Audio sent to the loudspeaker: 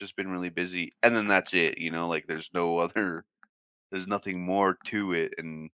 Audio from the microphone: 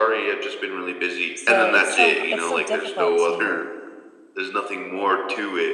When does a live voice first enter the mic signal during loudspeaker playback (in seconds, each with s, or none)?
1.3 s